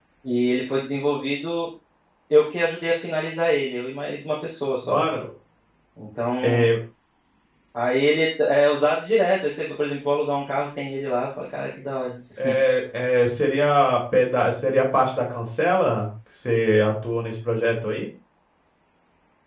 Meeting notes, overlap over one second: none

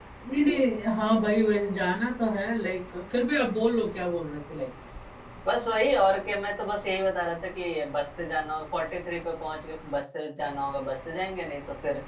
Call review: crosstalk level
none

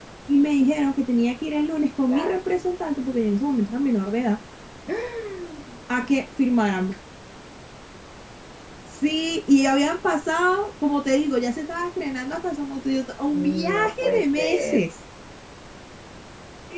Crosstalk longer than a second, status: present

